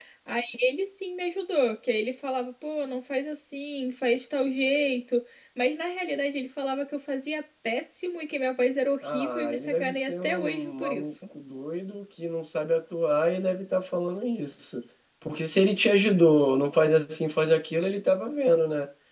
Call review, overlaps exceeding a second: present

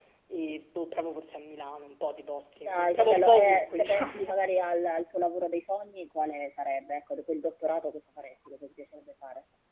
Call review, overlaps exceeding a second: present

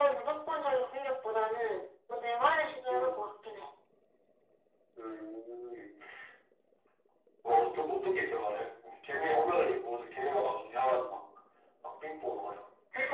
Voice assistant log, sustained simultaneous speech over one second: none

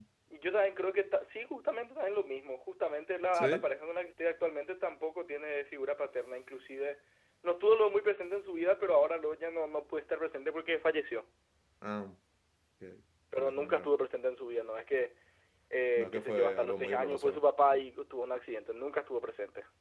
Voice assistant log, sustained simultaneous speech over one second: present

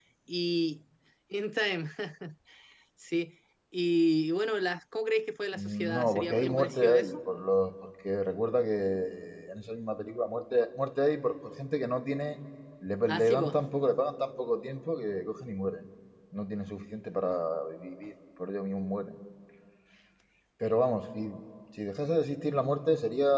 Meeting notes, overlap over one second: present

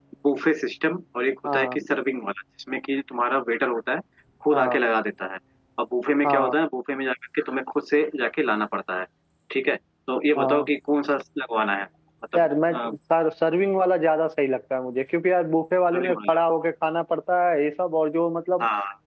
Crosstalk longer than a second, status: none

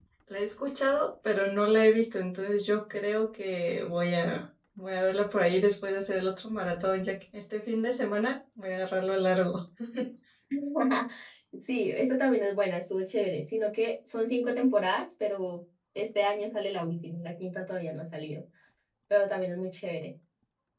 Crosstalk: none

